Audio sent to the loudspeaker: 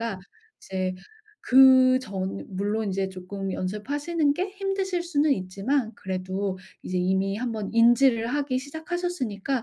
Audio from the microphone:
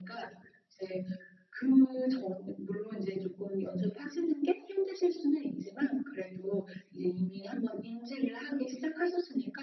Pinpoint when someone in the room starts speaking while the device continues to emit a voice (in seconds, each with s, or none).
none